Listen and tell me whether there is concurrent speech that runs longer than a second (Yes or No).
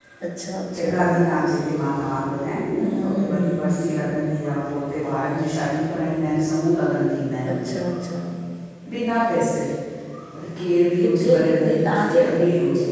Yes